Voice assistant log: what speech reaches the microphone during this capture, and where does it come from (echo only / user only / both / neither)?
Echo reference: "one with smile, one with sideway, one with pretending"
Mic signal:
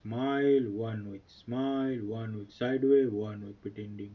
echo only